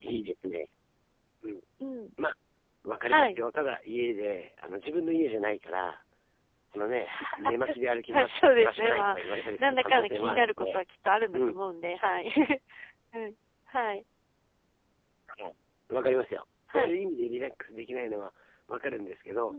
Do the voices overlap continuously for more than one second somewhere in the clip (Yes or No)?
Yes